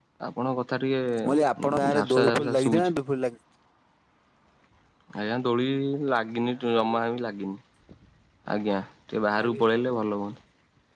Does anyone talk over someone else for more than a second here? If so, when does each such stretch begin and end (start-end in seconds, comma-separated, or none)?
1.2-2.9